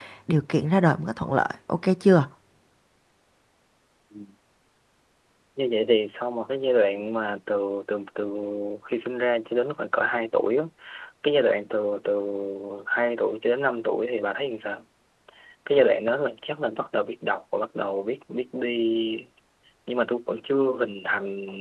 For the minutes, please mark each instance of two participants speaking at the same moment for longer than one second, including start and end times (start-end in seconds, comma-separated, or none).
none